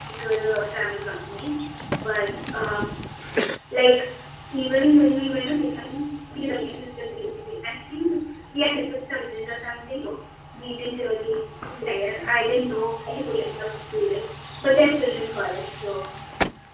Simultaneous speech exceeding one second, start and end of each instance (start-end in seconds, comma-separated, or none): none